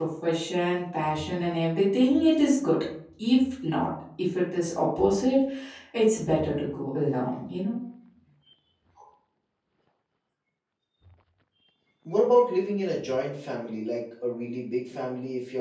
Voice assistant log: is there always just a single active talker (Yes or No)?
Yes